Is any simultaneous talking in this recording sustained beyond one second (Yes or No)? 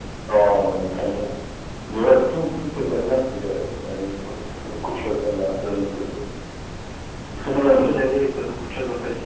No